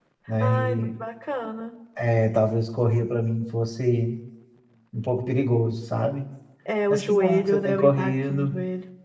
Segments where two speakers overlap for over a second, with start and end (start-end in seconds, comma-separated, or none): 6.9-8.5